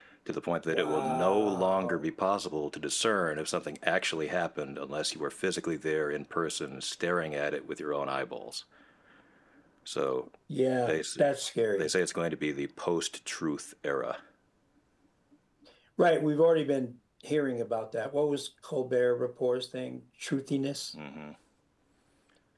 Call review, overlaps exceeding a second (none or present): present